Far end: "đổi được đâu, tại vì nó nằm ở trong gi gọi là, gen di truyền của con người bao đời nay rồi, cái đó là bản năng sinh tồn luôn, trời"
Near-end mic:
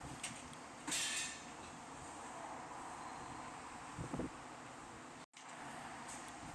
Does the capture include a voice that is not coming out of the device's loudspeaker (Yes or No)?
No